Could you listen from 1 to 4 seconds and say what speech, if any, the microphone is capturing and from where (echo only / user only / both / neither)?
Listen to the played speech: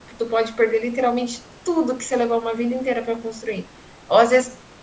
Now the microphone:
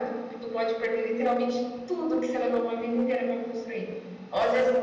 echo only